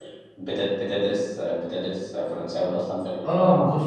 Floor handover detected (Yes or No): Yes